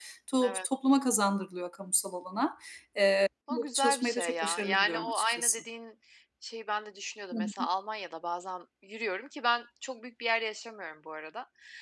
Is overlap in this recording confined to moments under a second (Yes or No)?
No